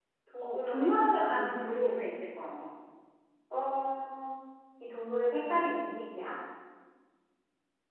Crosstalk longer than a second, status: present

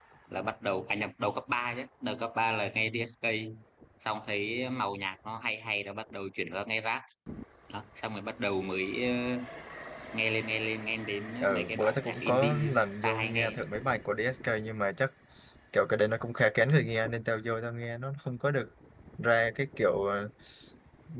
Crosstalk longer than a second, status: present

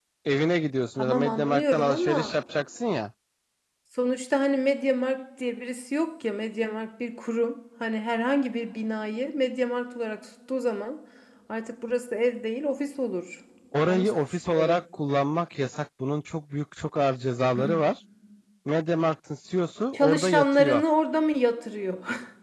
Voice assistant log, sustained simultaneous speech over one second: present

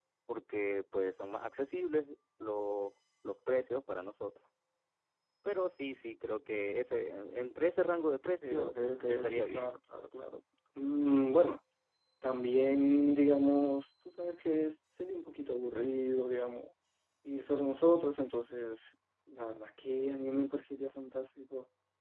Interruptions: present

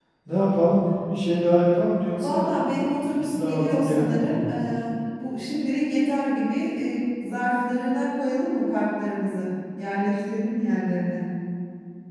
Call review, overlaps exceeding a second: present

